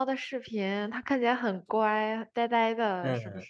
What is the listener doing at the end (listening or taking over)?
taking over